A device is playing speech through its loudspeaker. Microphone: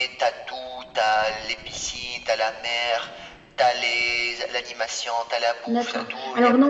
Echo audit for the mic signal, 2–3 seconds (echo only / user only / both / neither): echo only